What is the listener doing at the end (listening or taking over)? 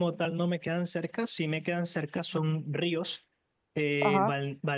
listening